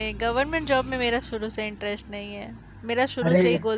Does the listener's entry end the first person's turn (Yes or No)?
No